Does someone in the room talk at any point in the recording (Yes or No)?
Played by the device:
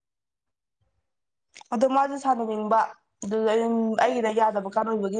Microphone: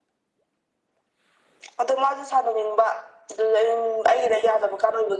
No